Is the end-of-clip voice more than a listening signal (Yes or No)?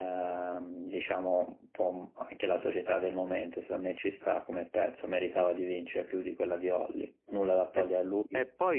Yes